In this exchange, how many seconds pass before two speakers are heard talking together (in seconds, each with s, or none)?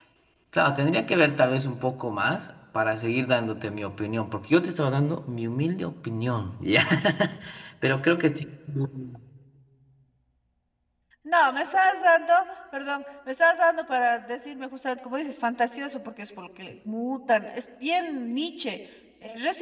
none